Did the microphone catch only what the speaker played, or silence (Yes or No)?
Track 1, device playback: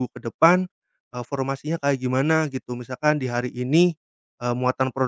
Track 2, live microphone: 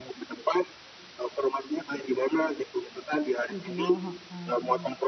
No